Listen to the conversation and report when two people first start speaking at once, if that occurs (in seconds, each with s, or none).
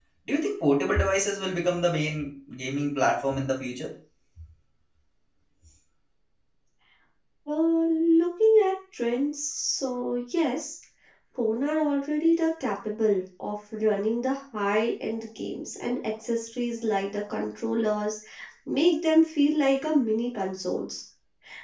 none